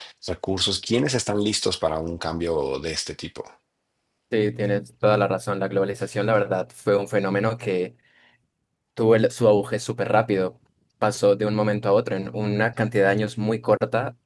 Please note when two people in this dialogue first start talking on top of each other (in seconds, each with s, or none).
none